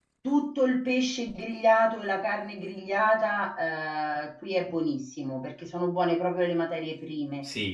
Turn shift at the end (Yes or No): No